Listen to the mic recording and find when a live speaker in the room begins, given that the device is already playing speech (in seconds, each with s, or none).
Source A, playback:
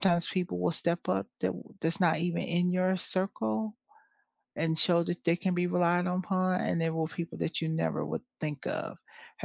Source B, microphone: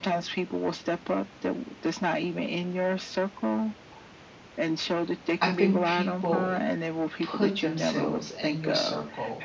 5.4 s